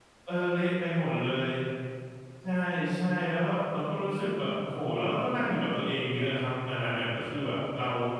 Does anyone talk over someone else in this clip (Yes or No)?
No